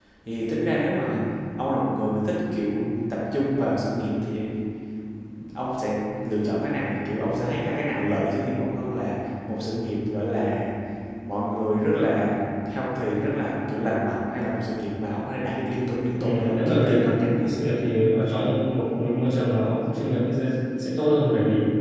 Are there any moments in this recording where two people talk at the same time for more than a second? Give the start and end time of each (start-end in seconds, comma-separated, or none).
16.2-17.5